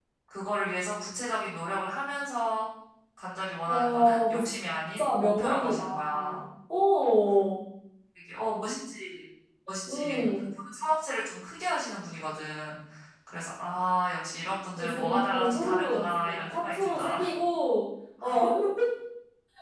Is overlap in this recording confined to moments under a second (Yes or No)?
No